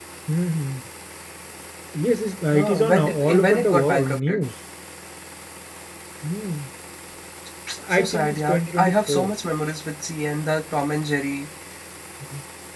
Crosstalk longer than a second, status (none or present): present